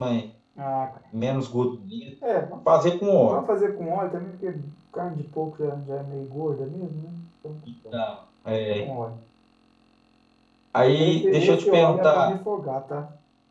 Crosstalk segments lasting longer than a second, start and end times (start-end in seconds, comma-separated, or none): 11.0-12.3